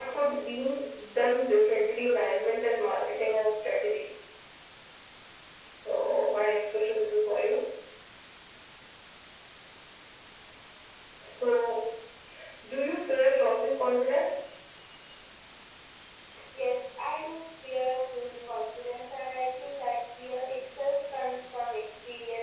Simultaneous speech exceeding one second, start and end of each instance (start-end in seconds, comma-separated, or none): none